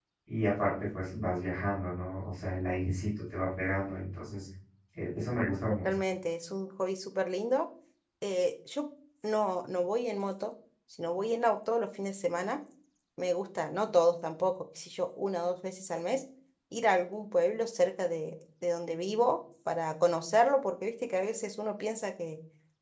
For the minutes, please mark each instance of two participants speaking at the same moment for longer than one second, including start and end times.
none

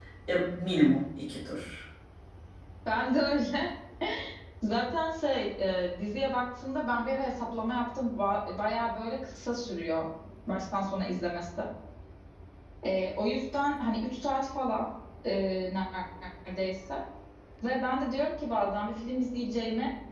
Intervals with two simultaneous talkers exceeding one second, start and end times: none

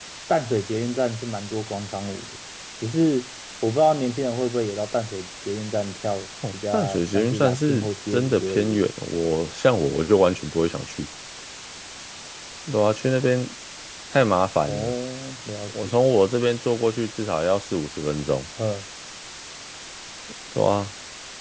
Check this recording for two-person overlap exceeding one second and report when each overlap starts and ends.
6.5-8.8

